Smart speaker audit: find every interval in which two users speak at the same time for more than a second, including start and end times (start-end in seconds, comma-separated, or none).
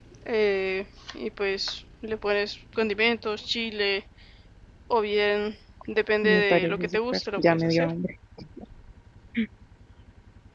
6.2-7.9